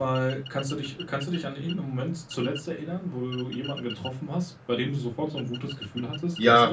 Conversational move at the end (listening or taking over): taking over